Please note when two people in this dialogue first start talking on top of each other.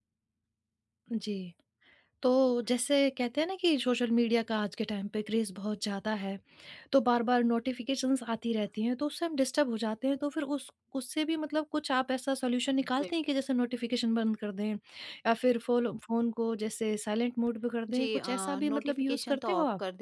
17.9 s

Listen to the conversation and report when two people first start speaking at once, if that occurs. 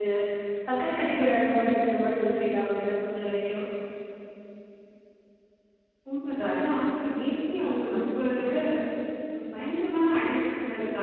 none

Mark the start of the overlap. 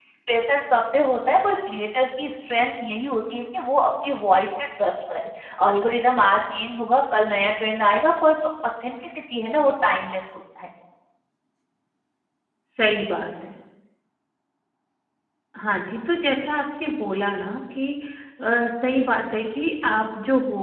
none

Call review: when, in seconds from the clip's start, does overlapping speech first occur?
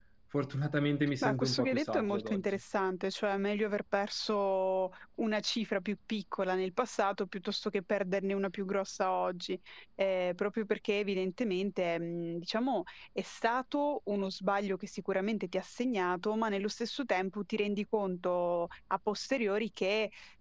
1.2 s

